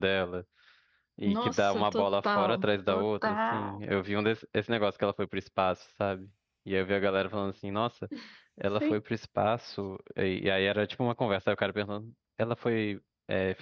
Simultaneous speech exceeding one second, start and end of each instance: 1.2-3.8

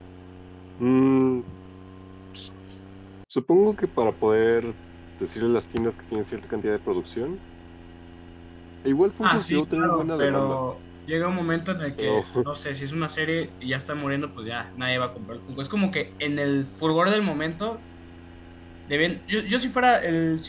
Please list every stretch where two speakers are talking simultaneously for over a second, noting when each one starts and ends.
9.2-10.6

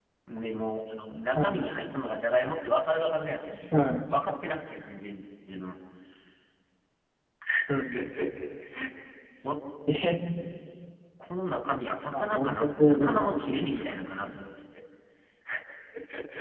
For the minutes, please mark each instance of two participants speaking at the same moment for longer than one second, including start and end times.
12.1-13.8

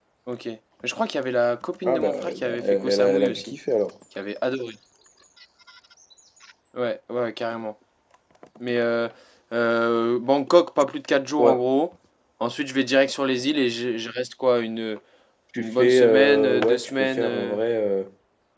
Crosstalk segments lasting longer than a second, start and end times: 1.8-3.5, 15.6-17.6

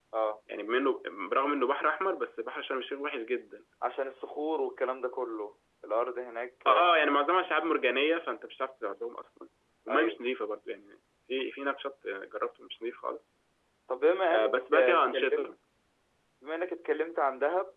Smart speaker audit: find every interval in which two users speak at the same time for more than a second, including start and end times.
14.3-15.5

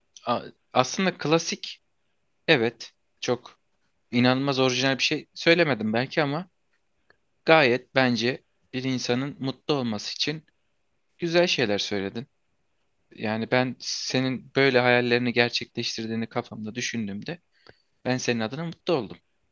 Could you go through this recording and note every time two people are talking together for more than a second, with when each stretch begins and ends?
none

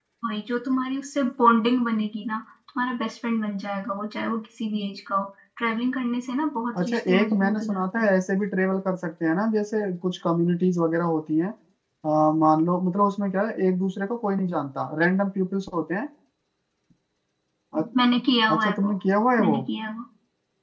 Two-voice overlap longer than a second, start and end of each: 6.8-8.1

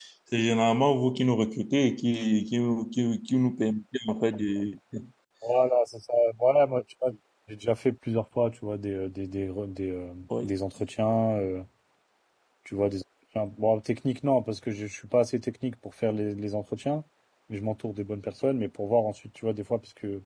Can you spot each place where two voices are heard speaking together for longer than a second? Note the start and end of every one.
none

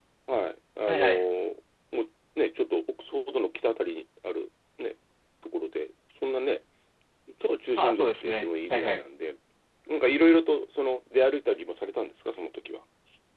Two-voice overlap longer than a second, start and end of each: 7.8-9.0

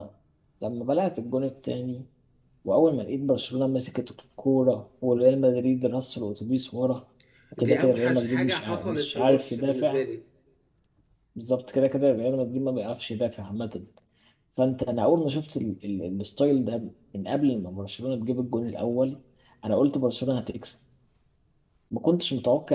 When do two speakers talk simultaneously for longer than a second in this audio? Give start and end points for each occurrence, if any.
7.6-10.0

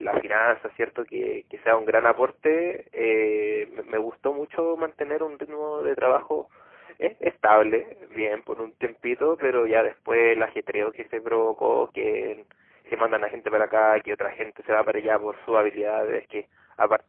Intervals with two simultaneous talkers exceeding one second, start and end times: none

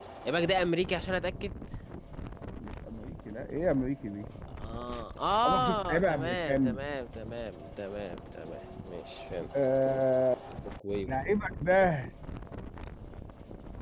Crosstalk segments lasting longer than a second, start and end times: 5.4-6.8

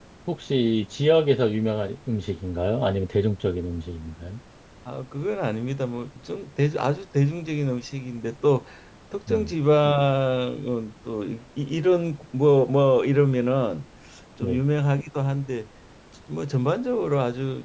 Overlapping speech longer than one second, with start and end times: none

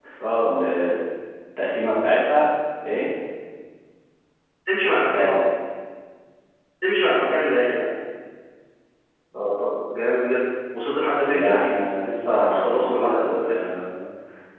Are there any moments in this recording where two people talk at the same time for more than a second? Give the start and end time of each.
12.3-13.7

